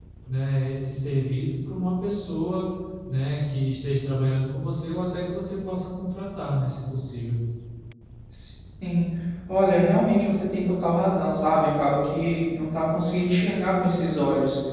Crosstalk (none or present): none